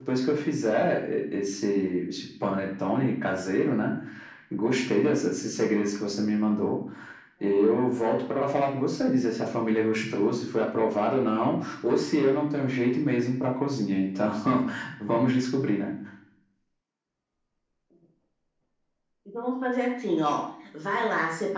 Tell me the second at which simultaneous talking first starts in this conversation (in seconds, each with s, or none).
none